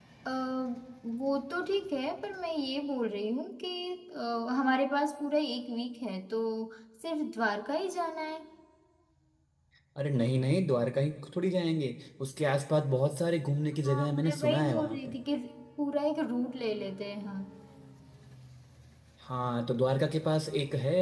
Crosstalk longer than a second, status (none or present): present